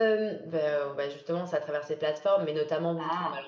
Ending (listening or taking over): listening